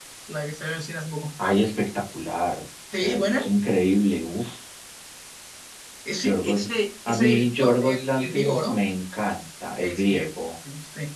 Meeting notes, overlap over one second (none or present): present